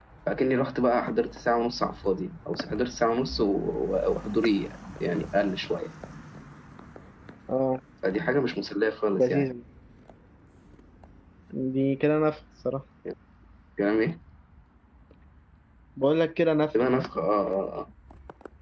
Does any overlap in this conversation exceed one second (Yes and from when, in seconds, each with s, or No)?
No